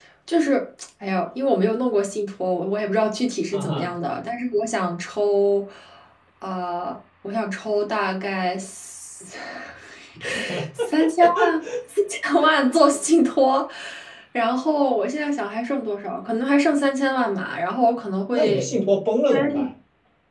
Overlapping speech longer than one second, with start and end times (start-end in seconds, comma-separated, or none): none